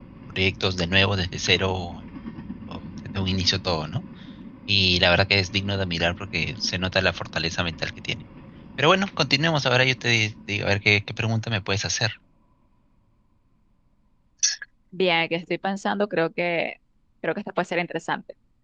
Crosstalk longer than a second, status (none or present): none